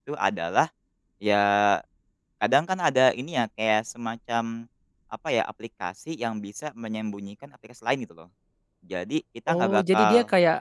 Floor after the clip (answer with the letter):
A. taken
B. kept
A